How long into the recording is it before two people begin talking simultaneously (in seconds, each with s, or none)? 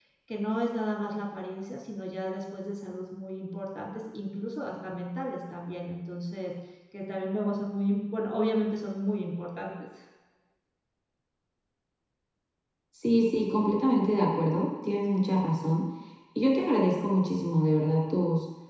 none